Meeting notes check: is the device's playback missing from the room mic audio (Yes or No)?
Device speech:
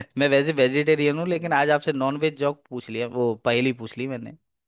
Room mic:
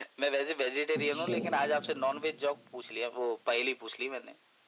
No